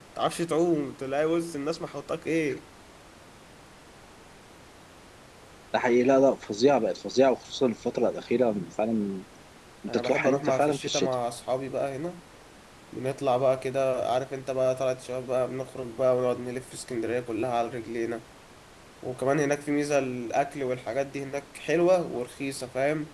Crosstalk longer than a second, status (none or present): present